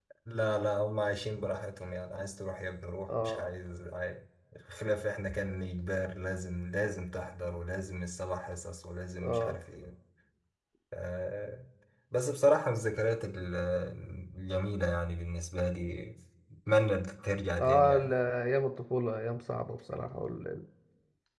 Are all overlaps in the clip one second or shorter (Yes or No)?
Yes